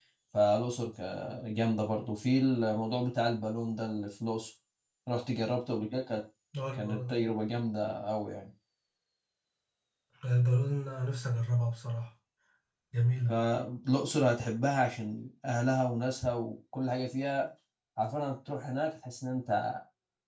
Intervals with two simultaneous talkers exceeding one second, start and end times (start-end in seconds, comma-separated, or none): none